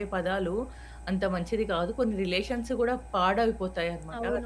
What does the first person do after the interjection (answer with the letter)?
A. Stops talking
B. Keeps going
A